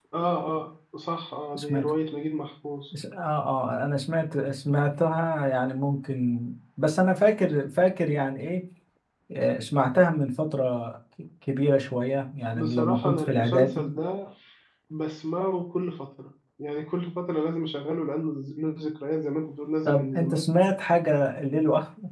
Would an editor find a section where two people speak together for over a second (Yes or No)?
Yes